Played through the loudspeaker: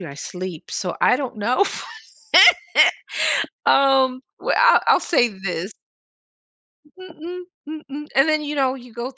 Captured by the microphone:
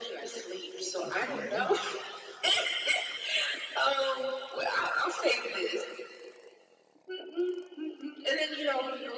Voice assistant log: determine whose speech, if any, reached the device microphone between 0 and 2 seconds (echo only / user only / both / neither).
both